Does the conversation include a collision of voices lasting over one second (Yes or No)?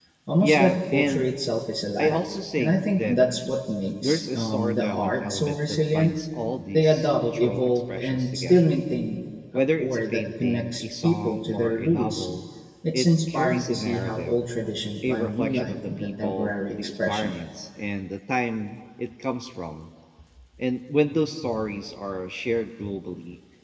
Yes